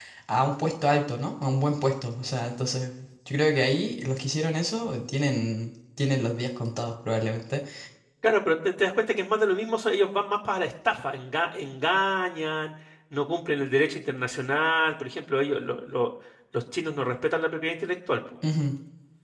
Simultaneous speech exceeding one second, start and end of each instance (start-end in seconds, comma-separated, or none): none